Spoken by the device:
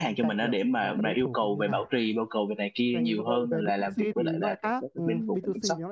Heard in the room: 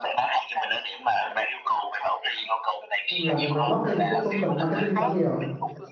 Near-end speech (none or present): present